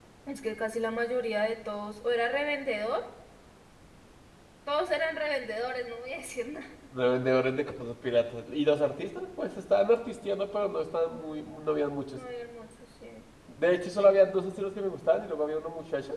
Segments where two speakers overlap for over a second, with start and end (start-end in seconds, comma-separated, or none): none